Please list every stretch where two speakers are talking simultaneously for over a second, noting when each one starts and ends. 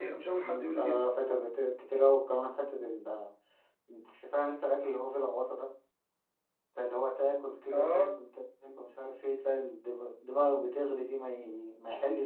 none

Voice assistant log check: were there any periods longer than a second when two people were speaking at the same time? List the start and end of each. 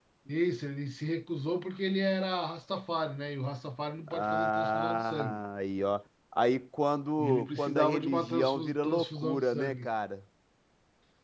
4.1-5.4, 7.2-9.9

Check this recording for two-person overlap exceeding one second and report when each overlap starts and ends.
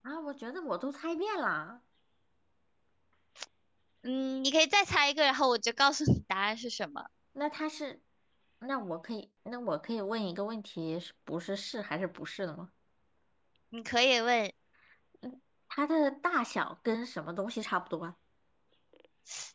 none

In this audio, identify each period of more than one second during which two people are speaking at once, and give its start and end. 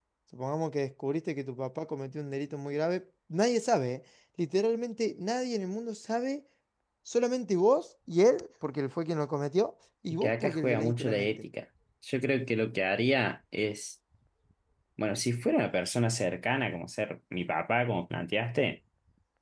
10.2-11.5

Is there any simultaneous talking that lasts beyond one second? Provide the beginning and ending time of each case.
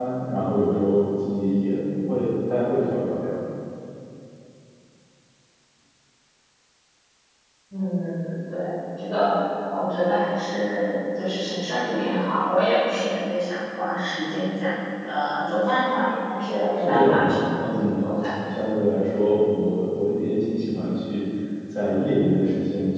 16.8-18.1

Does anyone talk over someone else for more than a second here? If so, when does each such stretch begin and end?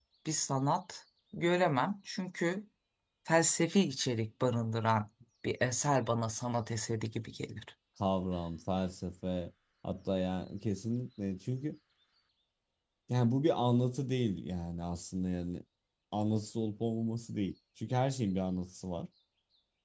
none

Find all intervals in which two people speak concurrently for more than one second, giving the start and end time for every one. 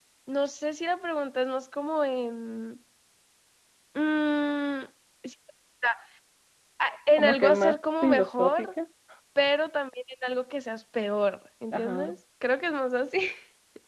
7.2-8.7

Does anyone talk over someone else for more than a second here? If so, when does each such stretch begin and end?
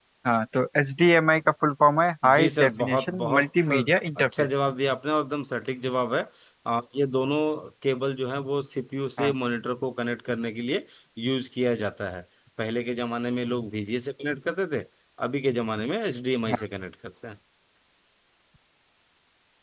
2.3-3.8

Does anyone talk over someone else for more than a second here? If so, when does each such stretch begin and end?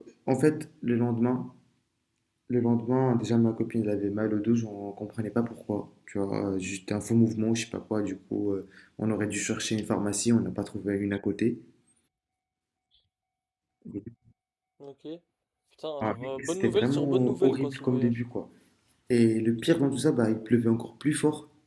16.0-18.1

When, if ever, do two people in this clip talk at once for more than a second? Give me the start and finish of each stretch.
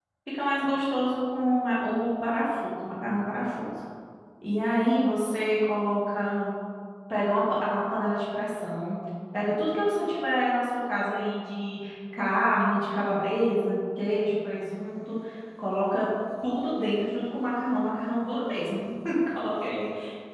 none

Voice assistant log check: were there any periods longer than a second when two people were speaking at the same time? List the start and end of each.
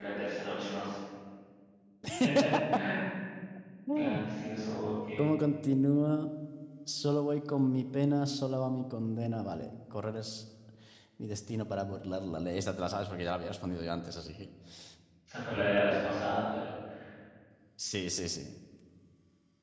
none

